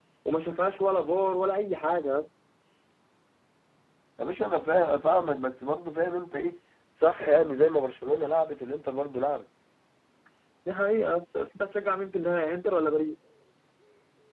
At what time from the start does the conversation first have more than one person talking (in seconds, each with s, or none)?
none